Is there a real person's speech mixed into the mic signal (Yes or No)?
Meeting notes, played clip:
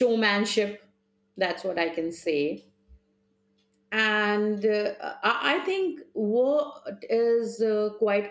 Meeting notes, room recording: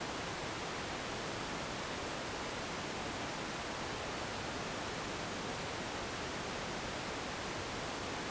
No